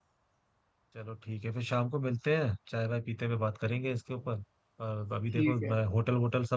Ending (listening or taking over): listening